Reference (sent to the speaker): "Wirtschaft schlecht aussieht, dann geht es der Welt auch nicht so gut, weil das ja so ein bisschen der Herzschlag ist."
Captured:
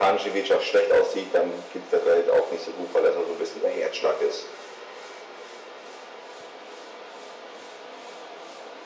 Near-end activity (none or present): none